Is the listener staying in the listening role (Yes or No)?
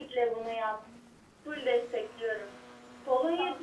Yes